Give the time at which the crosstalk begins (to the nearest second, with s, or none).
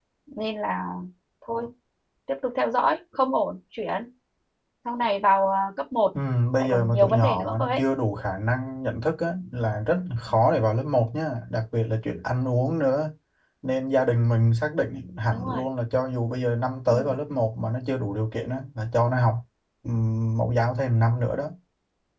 7 s